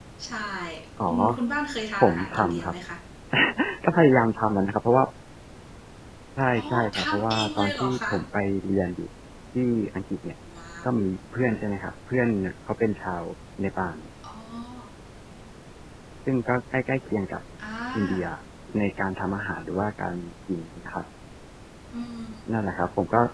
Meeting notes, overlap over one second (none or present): present